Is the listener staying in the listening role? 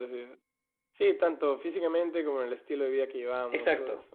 No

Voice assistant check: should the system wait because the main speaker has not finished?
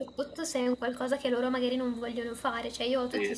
Yes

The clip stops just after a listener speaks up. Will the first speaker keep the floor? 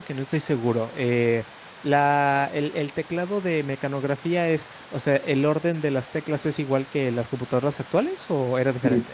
No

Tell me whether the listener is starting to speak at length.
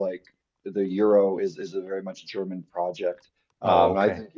No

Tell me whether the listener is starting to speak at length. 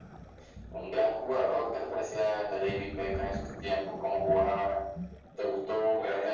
No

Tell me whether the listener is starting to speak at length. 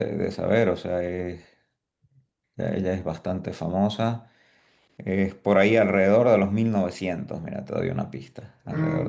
Yes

